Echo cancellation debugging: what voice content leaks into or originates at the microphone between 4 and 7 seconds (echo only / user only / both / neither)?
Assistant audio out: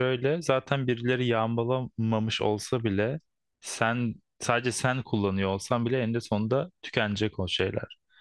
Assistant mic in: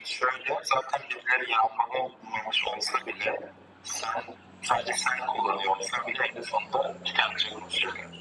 echo only